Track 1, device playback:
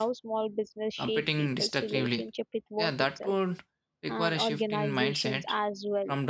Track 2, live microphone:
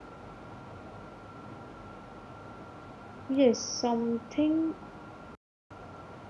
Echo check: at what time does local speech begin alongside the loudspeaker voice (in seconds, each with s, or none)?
3.3 s